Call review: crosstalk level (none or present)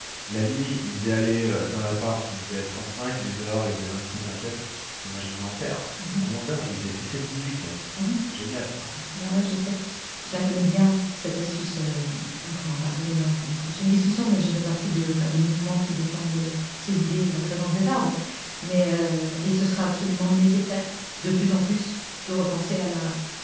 none